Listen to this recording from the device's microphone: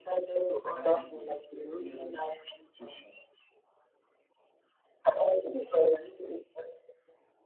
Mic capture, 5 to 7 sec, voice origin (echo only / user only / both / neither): echo only